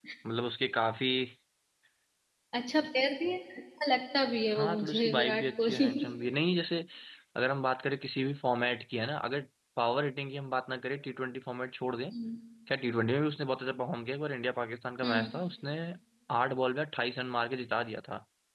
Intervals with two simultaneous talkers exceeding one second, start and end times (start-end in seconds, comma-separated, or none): 4.5-6.1